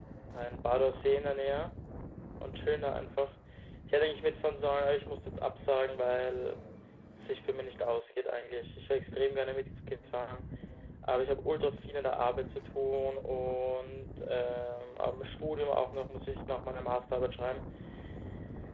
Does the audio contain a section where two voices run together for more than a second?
No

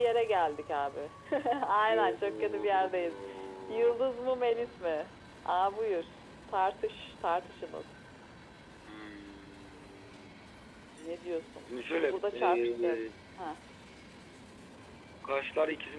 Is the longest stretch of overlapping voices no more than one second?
No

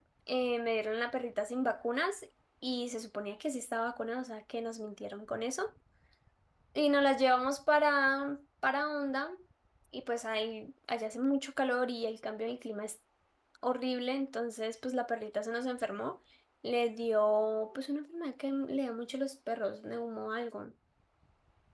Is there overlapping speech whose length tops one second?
No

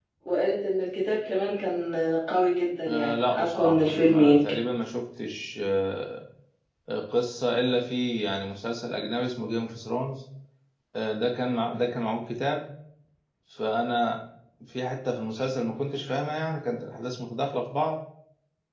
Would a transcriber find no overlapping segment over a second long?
No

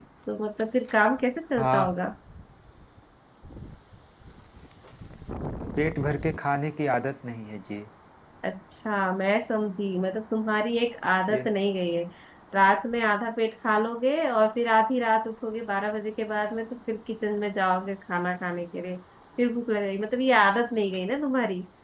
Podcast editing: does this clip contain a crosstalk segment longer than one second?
No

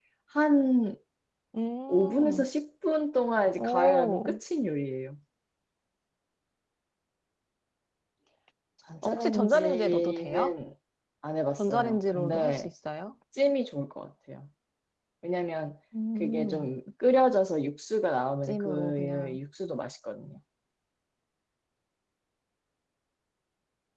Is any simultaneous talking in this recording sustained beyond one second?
Yes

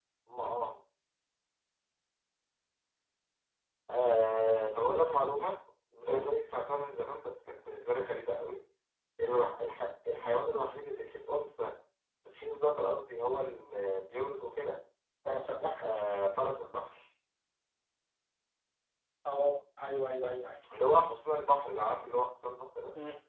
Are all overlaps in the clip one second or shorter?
Yes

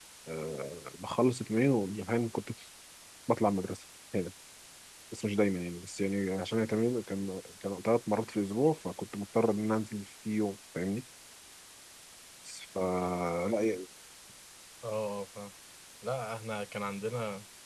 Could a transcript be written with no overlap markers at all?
Yes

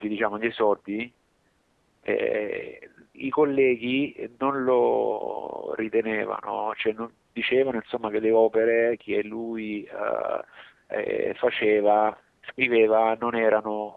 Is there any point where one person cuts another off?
No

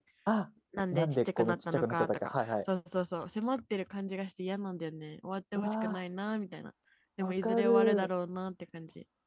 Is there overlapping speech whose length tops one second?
Yes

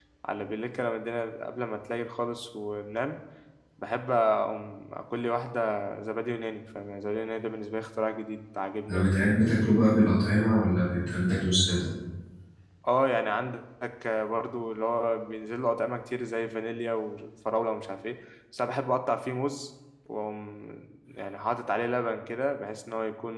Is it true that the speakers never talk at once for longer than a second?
Yes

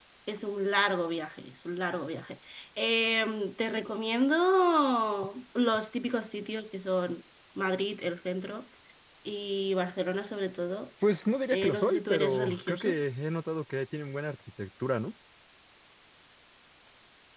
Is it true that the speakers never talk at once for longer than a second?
No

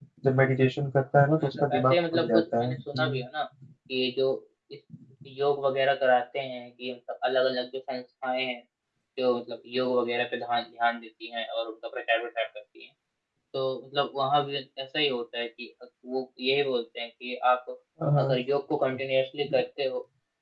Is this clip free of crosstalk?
No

